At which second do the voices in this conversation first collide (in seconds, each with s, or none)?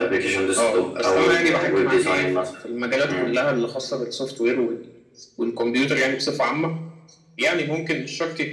0.6 s